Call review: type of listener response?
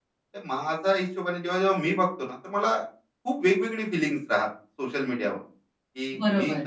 listening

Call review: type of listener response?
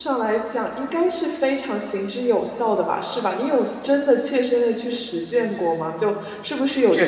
listening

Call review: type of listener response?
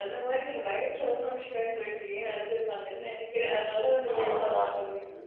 taking over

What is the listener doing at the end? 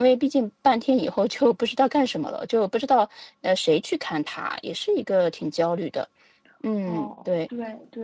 taking over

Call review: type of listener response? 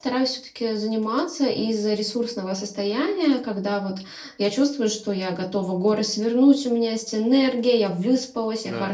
listening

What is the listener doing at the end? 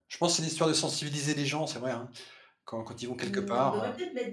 taking over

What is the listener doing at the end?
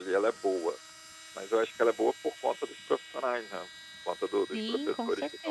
taking over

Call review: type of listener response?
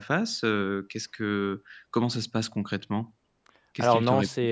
taking over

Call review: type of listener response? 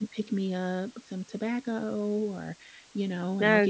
listening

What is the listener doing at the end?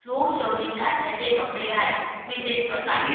taking over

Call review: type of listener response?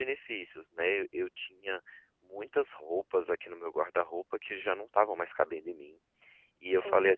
listening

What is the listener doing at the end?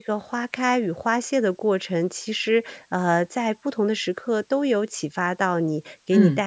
listening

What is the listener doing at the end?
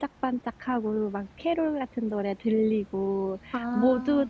listening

